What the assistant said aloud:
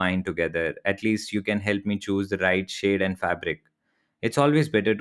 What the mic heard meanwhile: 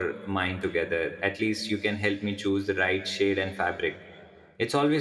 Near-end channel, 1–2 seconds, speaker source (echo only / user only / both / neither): echo only